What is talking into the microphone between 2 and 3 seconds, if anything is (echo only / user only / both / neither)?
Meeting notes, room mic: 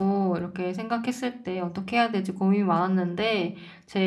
user only